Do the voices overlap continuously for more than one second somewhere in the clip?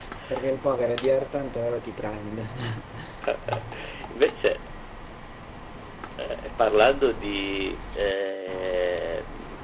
No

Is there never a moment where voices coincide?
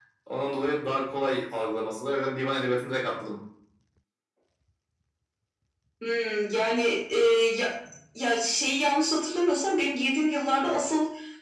Yes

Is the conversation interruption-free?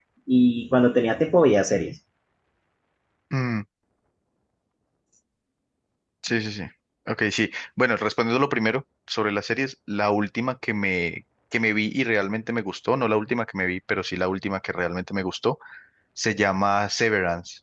Yes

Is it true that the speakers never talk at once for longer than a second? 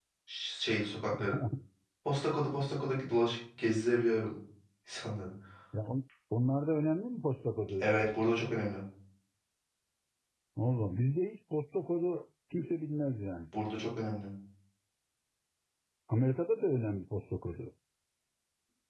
Yes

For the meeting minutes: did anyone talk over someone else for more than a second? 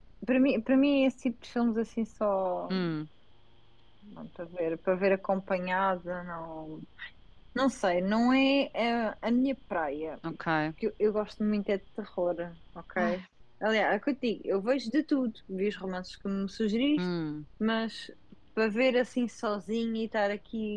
No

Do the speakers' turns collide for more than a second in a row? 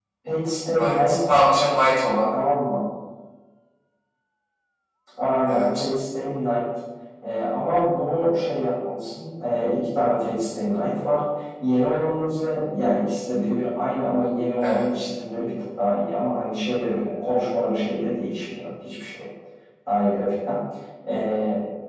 No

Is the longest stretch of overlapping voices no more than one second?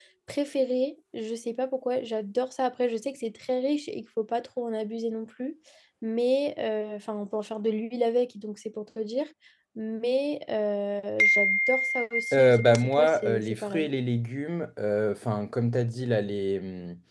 No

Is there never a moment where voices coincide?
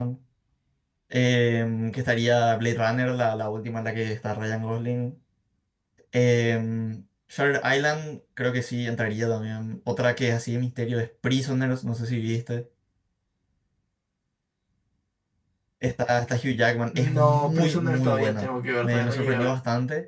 No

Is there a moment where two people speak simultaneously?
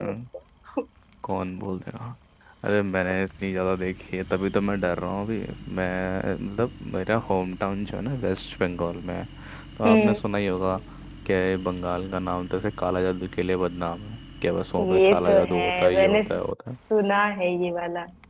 Yes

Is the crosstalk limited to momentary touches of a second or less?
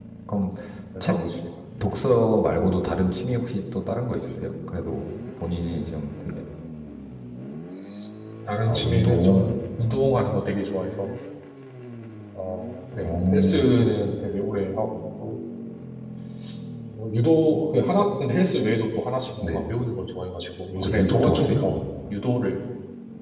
No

